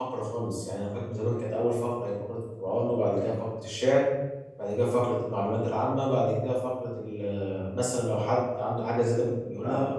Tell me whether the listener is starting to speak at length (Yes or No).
Yes